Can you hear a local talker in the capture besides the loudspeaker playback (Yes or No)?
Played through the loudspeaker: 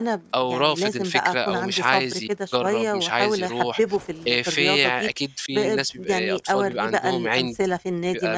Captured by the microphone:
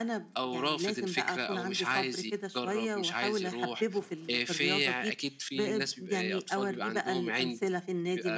No